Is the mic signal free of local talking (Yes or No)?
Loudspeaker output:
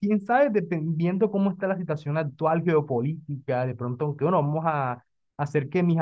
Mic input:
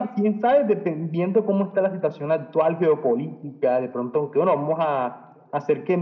Yes